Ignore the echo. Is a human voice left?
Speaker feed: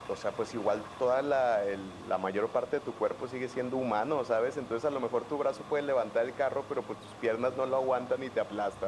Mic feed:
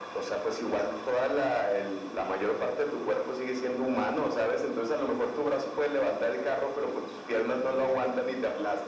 No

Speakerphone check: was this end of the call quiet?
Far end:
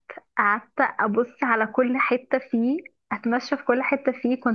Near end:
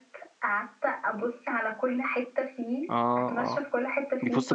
No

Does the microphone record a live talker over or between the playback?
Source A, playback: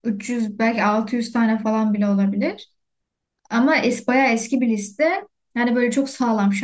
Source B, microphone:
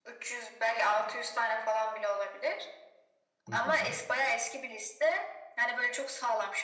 Yes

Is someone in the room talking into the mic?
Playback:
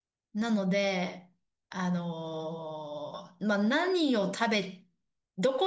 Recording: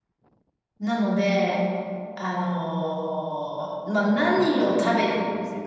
Yes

